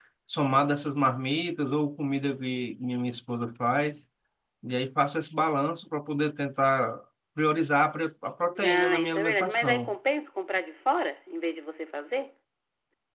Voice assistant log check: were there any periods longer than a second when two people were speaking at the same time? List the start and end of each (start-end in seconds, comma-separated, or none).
8.6-9.9